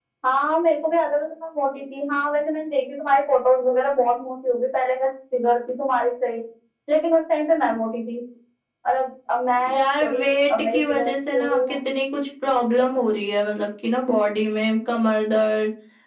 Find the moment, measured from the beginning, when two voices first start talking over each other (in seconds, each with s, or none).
9.7 s